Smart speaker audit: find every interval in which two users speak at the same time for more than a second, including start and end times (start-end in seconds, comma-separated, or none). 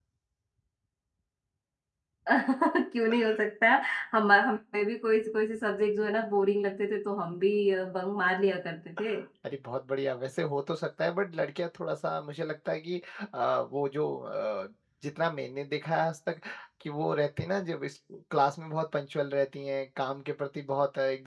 none